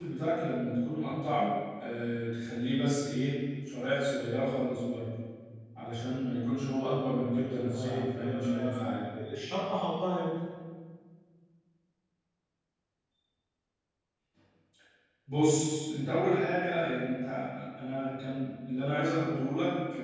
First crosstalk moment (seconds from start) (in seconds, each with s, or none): 7.2 s